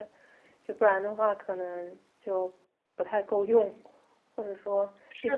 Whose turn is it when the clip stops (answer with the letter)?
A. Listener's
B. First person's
A